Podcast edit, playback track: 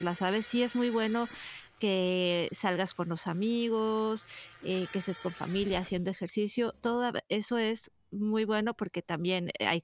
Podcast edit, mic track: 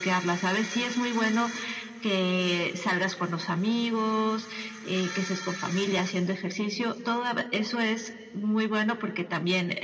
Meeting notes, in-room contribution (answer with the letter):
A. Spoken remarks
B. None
B